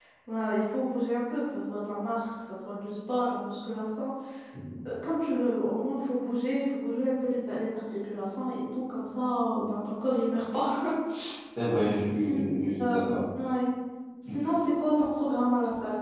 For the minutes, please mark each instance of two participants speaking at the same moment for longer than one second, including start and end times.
none

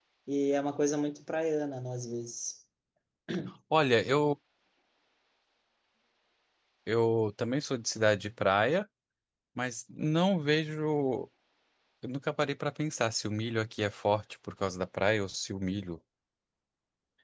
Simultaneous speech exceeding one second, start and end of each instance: none

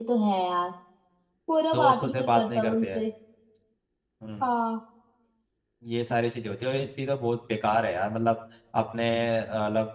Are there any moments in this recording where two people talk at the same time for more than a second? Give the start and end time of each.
1.7-3.0

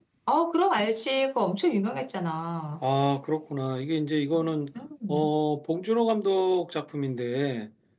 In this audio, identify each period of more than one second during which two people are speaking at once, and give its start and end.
none

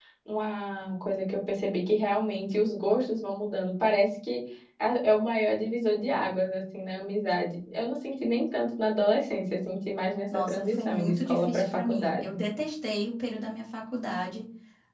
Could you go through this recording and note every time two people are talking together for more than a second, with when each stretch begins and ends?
10.3-12.2

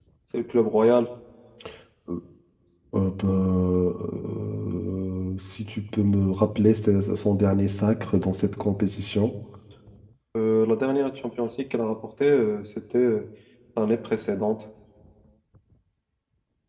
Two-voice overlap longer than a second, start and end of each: none

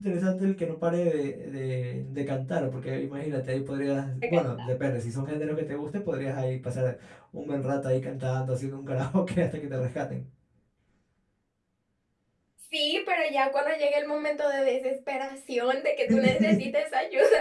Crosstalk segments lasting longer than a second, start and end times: none

